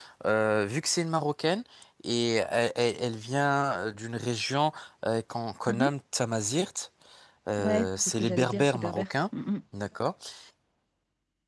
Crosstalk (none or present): present